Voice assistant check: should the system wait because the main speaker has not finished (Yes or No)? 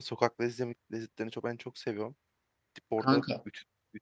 Yes